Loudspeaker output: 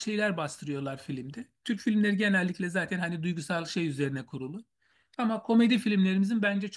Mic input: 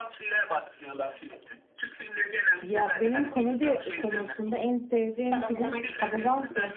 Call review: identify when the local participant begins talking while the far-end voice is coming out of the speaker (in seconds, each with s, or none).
2.6 s